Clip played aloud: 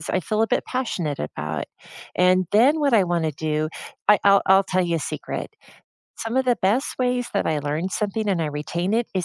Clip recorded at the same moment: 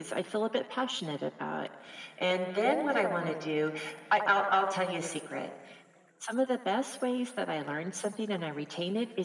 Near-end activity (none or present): none